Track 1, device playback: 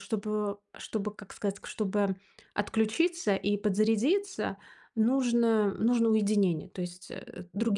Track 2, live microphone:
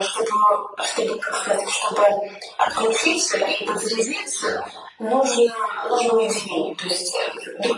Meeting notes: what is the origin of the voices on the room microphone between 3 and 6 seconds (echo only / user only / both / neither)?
echo only